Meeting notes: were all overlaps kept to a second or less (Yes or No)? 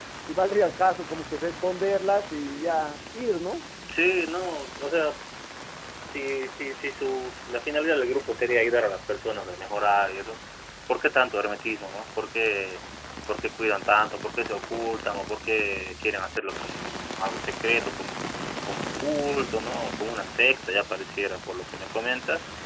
Yes